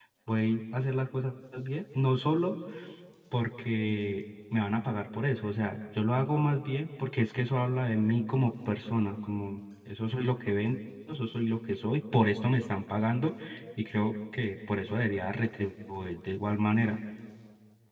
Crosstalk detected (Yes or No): No